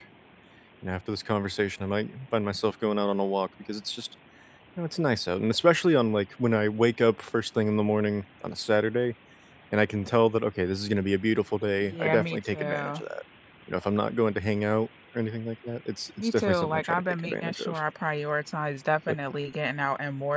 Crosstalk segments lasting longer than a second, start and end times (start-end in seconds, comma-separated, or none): 11.8-13.0, 16.2-17.8